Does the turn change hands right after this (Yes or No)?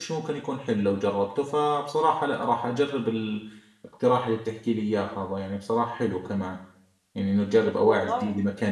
No